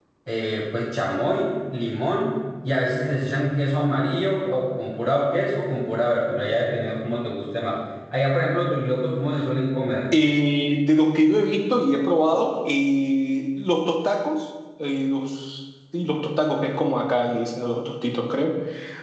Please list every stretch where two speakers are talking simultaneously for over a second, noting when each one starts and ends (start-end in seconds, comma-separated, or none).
none